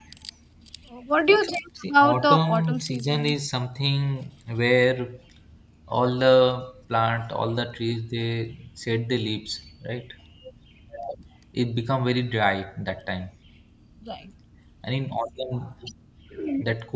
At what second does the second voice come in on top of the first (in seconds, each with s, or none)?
1.8 s